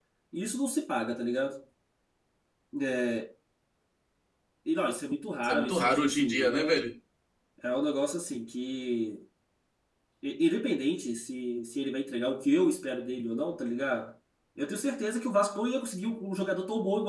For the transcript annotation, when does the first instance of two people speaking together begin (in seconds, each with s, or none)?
5.4 s